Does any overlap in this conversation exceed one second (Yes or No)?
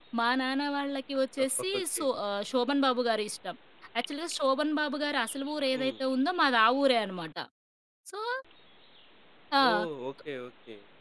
No